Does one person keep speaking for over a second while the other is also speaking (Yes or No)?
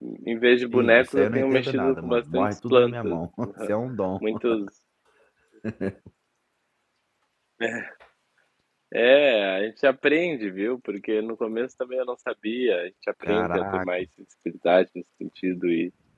Yes